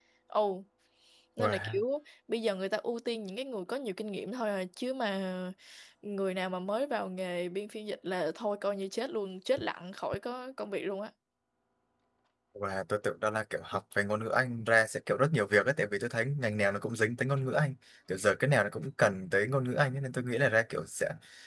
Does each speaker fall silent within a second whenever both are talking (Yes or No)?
Yes